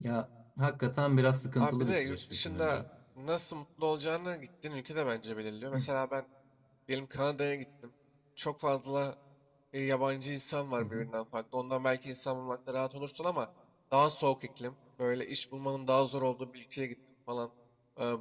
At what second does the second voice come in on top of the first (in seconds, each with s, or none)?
1.6 s